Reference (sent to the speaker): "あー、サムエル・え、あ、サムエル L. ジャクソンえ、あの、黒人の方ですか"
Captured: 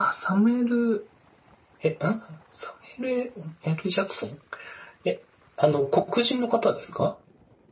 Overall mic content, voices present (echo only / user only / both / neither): echo only